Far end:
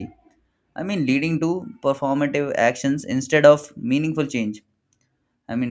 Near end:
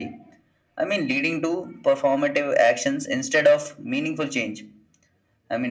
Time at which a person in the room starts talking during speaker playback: none

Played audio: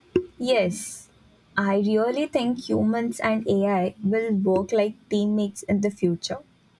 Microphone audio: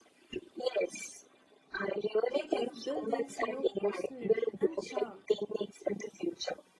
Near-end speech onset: 2.3 s

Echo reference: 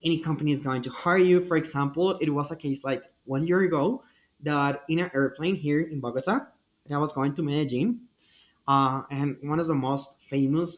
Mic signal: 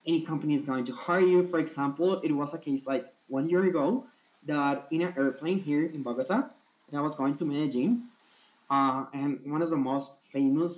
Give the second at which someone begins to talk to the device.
none

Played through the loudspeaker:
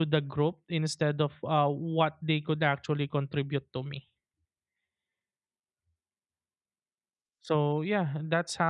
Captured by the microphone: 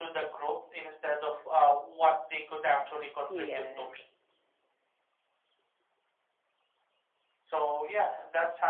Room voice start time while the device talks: 3.3 s

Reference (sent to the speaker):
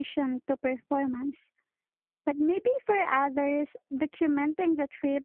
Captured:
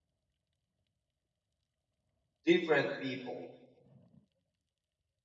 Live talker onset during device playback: 2.4 s

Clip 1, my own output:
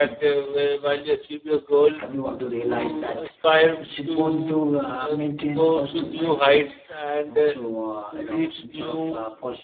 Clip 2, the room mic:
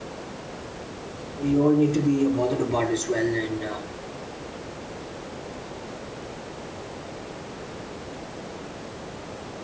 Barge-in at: 1.4 s

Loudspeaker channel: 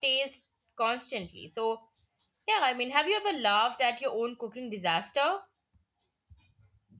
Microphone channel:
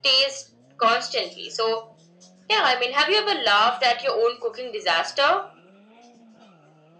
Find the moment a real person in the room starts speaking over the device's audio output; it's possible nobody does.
none

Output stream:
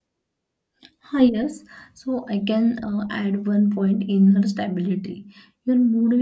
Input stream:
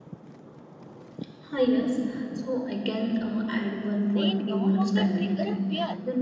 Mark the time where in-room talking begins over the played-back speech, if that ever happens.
4.2 s

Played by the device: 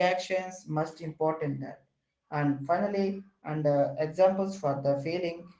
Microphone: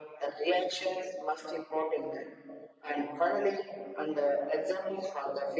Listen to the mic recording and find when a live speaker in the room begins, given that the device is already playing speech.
none

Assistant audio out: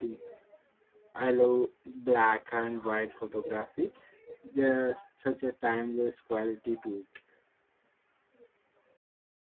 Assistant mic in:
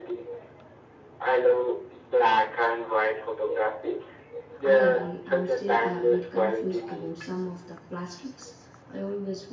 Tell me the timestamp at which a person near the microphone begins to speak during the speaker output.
4.6 s

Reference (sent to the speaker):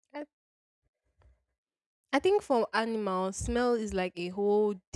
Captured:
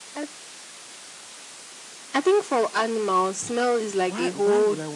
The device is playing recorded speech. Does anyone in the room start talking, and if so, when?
4.0 s

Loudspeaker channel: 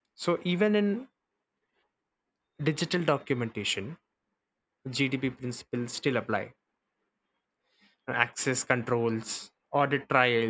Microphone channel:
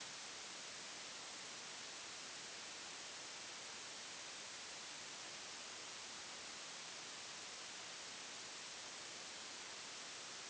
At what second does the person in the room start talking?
none

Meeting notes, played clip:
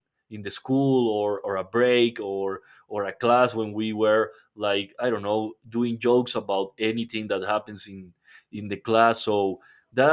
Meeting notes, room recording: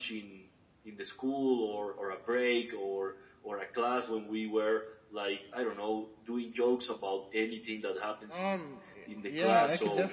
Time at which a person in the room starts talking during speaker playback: 8.3 s

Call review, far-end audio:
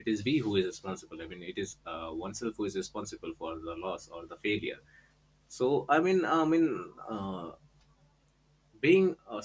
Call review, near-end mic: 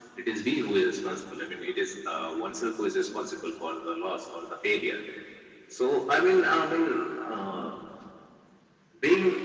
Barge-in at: none

